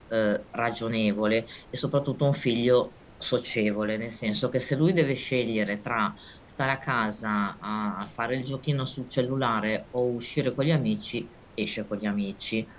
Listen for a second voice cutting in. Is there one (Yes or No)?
No